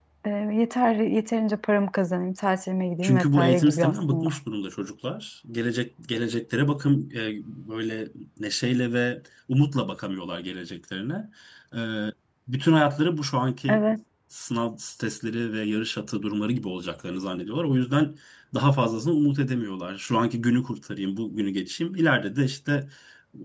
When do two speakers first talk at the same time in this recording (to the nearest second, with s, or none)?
3 s